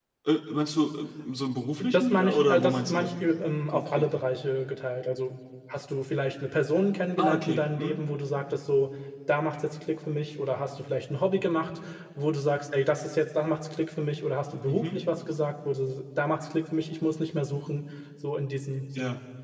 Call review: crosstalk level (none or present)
present